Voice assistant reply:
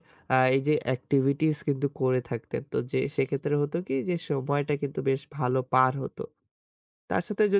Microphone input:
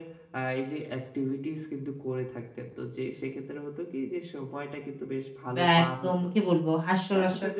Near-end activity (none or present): present